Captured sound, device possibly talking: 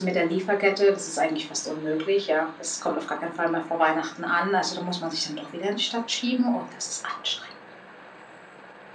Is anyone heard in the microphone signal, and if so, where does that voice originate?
echo only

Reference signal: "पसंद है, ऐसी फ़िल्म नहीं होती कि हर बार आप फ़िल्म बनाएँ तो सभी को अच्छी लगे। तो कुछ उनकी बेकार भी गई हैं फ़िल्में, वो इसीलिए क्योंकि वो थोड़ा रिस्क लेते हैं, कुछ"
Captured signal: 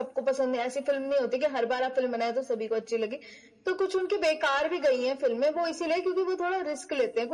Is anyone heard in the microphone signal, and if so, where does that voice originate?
echo only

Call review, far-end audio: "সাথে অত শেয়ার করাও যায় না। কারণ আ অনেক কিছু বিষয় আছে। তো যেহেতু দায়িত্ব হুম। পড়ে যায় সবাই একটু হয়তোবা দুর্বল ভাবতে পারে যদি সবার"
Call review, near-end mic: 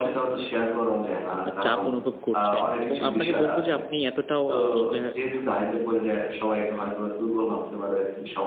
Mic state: both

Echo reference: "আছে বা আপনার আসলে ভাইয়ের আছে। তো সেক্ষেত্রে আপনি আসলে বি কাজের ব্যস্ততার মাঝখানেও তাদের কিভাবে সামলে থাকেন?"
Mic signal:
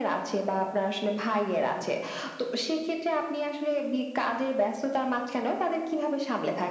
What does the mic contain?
echo only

